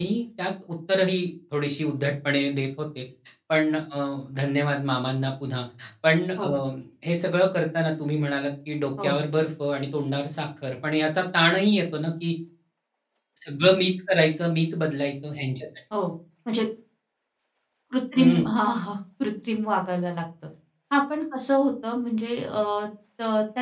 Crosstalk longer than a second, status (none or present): none